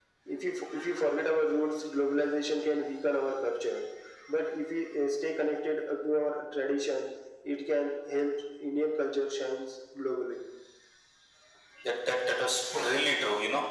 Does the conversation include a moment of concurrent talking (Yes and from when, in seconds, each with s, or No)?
No